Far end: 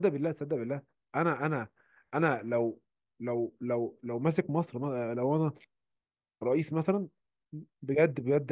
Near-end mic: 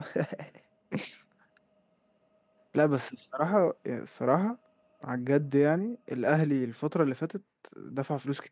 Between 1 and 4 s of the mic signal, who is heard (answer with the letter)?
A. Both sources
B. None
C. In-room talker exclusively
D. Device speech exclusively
C